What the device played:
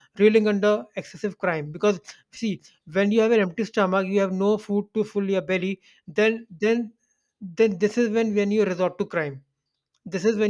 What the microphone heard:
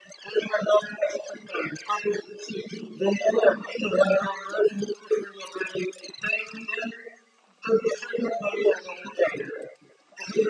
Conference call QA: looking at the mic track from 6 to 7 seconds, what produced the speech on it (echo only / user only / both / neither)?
echo only